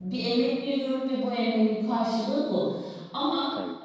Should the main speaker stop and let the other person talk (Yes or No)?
No